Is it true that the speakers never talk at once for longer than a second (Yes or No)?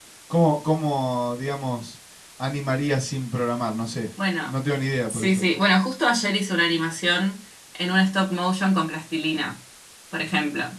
Yes